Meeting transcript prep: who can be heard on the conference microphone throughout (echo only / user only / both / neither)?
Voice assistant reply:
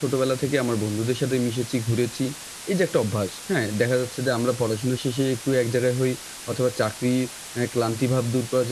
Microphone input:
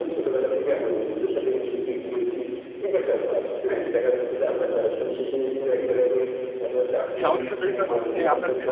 both